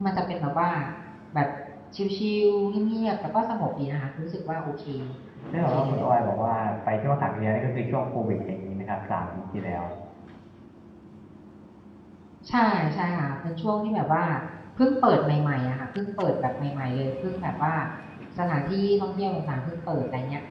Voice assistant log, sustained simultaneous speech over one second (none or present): none